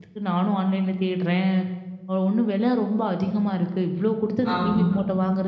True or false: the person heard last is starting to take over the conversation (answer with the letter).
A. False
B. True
A